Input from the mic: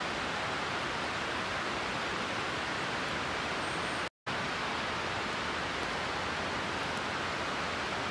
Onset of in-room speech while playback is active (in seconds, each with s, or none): none